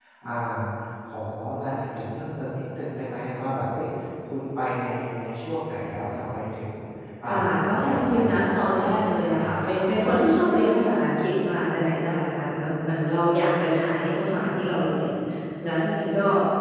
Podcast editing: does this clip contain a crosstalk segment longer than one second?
Yes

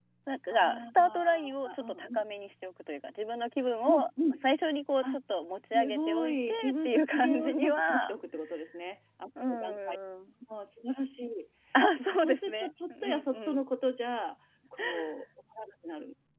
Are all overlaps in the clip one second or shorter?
No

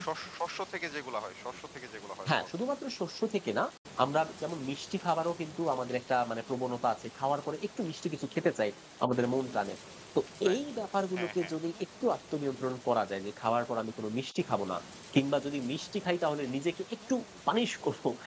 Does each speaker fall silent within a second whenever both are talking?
Yes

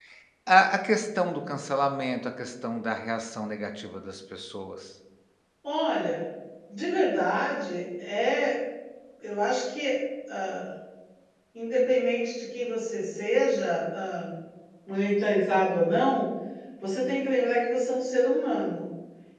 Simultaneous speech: No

